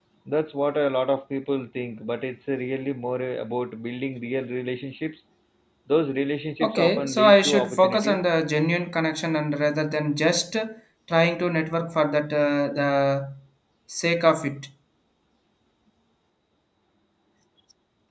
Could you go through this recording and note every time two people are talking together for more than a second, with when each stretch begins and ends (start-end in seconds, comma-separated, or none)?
6.6-8.2